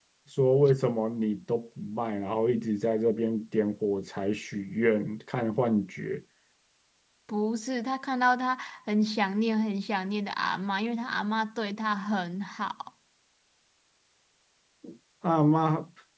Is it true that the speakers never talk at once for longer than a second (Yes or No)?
Yes